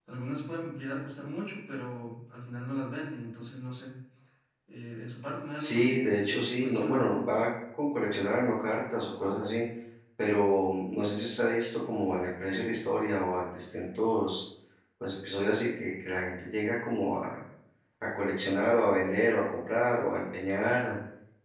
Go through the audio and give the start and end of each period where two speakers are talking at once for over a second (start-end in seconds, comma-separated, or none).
5.6-7.0